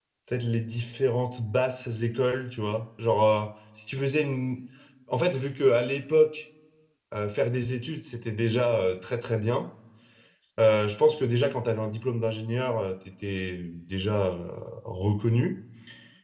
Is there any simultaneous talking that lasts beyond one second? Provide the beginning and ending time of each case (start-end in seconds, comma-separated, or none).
none